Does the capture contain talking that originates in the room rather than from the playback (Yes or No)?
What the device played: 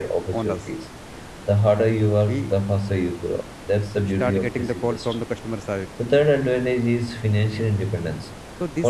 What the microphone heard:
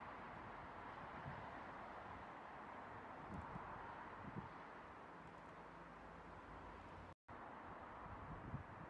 No